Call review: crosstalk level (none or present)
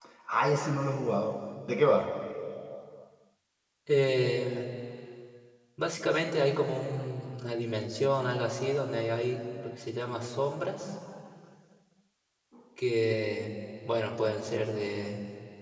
none